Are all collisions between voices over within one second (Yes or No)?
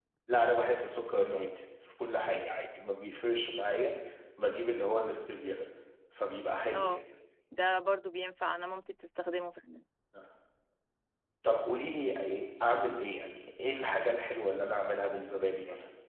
Yes